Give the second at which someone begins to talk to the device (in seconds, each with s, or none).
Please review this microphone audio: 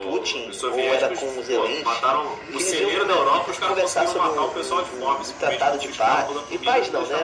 none